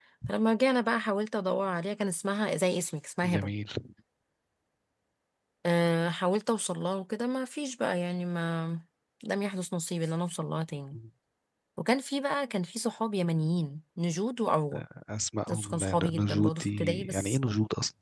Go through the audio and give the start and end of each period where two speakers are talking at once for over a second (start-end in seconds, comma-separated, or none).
15.5-17.4